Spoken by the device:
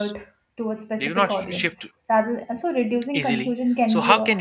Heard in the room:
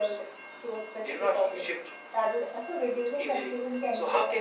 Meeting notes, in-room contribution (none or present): none